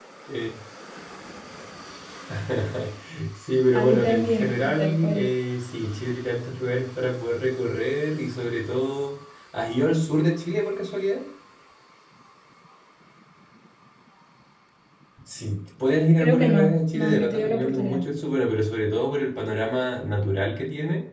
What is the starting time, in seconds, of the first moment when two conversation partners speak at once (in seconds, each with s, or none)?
3.7 s